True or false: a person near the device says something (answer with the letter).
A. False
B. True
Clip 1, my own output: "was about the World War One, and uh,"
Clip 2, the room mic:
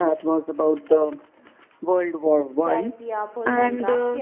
B